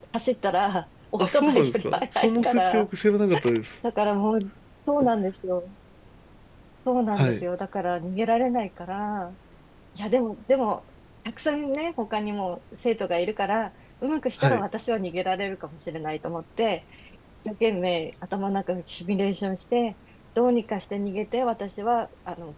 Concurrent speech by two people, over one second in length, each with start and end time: 1.2-2.9

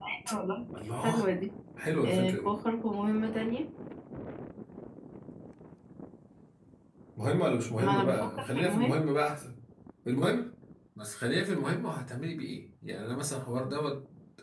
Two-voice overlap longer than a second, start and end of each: 7.8-9.0

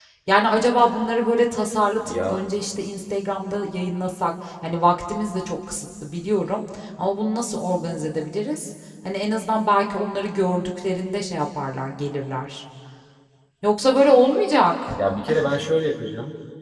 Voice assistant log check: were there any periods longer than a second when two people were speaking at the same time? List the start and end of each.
none

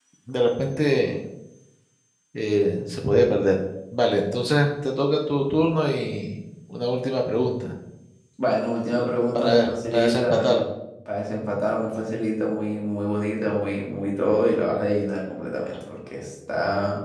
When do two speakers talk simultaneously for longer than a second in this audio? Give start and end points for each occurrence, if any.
9.3-10.6

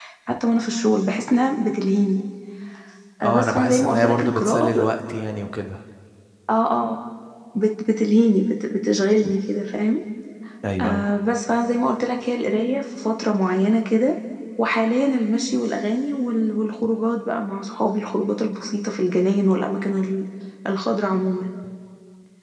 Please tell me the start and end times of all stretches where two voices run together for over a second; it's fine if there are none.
3.2-4.8

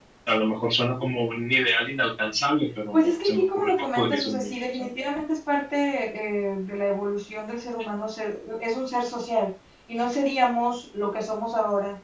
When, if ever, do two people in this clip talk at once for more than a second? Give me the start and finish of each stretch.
2.9-4.9

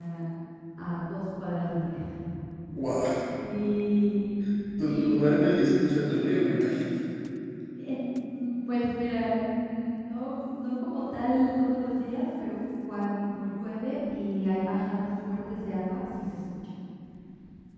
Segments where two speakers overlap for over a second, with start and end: none

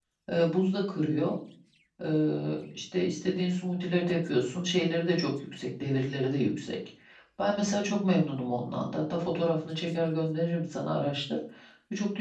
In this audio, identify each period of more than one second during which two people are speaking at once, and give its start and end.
none

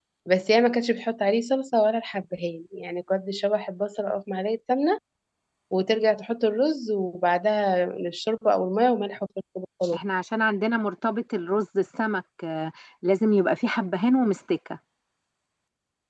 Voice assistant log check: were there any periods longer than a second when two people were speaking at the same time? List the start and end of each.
none

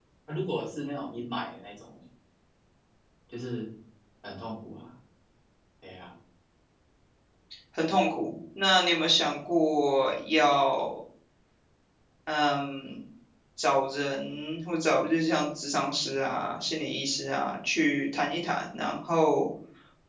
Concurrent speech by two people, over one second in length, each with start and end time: none

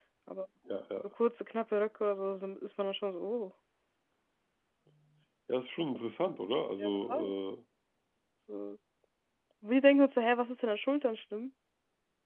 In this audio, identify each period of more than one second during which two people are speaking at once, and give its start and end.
none

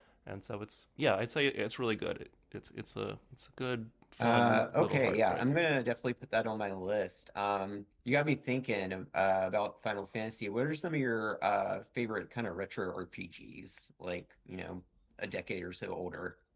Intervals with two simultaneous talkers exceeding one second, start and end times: 4.2-5.7

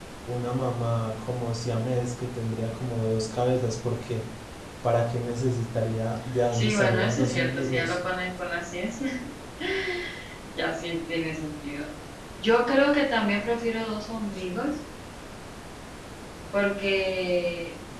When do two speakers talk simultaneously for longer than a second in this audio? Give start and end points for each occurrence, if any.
6.5-8.0

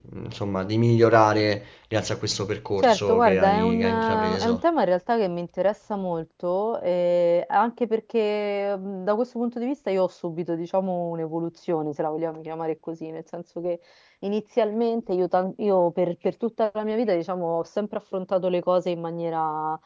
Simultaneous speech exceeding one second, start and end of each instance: 2.8-4.6

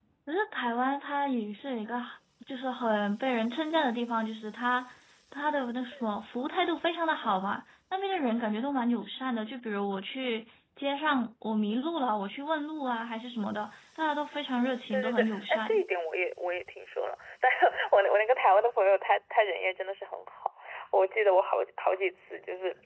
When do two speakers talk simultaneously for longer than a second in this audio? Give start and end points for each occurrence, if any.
14.6-15.8

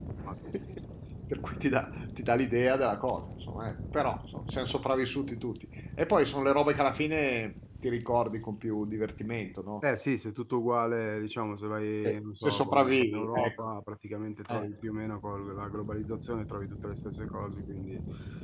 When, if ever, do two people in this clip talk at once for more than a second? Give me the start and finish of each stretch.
12.0-13.7

